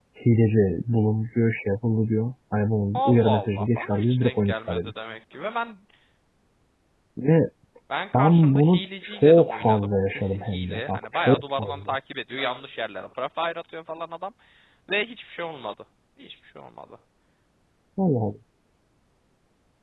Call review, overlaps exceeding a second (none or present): present